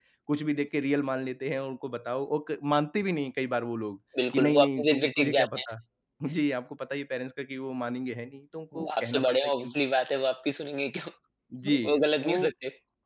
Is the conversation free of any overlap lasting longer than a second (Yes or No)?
No